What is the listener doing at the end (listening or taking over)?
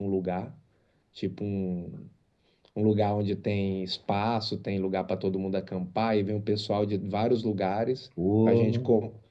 listening